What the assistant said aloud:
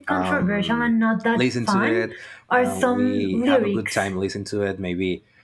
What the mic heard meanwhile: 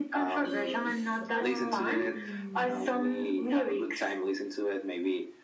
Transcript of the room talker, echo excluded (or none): is, um,